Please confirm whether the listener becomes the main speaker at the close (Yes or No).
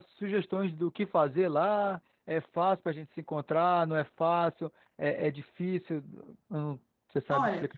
Yes